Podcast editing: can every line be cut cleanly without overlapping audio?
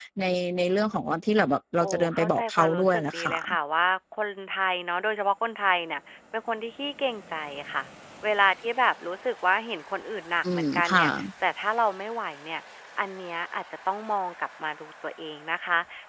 No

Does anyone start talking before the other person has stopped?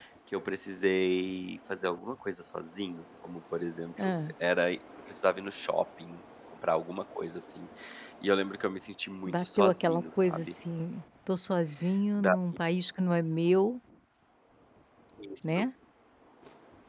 Yes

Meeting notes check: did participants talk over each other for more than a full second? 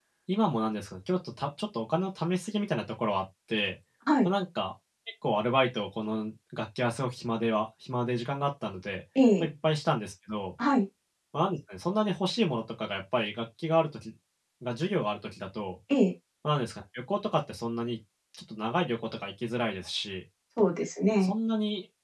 No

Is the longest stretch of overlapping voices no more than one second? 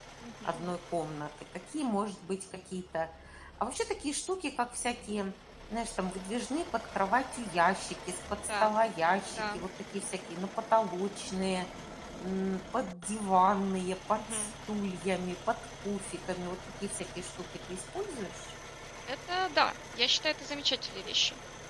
Yes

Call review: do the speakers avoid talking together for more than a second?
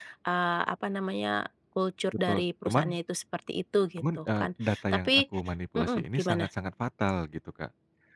No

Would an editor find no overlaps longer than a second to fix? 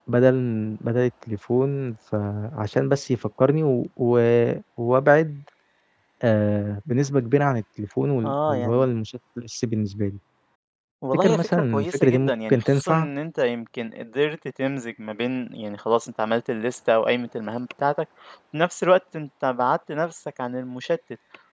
No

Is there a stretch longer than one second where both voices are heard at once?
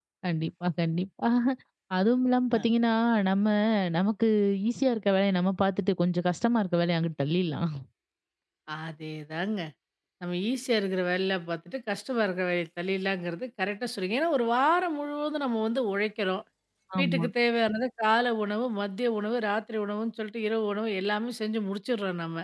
No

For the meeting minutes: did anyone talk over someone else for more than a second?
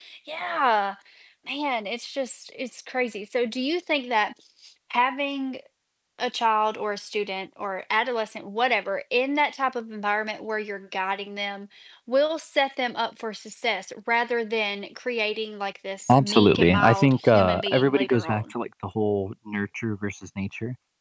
Yes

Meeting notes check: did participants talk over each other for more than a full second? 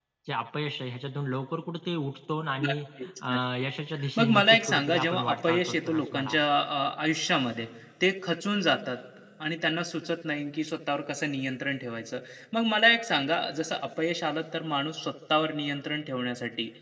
Yes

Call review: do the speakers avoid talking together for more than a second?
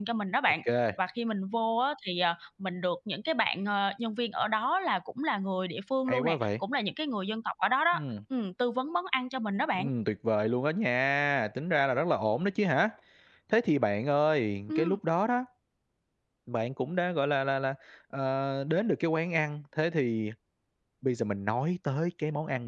Yes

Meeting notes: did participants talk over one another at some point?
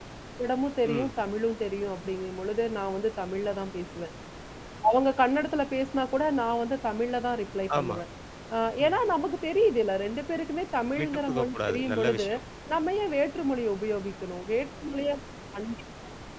Yes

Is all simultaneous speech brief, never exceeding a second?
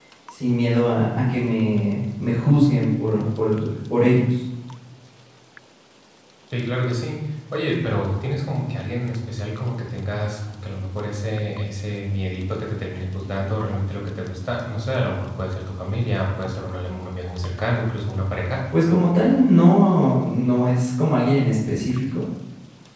Yes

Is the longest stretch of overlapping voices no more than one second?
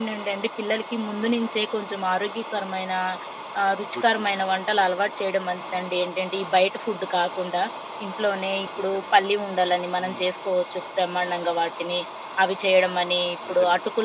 Yes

